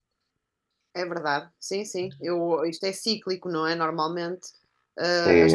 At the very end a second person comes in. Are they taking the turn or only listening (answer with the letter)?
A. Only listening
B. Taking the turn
B